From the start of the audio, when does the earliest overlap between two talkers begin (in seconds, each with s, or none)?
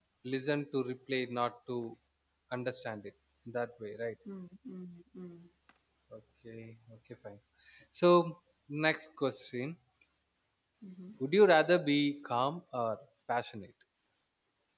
none